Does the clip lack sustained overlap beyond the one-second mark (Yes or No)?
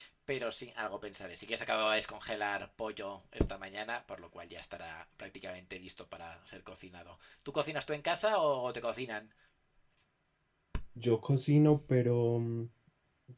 Yes